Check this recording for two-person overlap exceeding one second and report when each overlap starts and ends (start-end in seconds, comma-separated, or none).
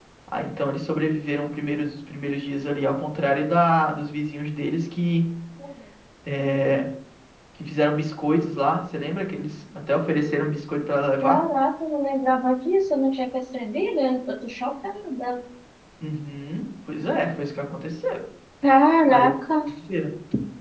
none